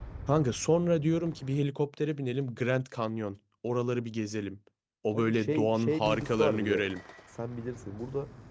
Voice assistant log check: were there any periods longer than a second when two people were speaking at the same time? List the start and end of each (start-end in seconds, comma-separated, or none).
5.1-6.9